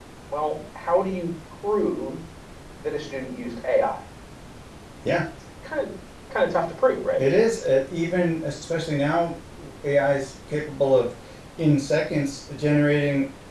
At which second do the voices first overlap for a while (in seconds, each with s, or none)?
none